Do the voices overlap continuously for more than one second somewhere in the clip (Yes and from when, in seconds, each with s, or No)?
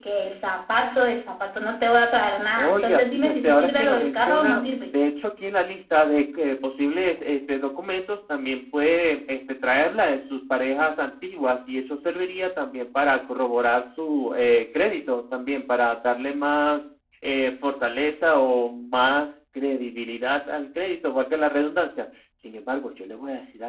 Yes, from 2.6 s